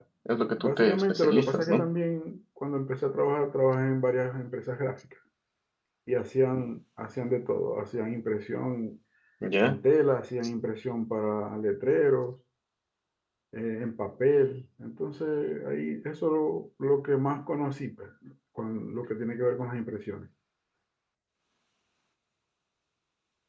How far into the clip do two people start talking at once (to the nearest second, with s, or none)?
1 s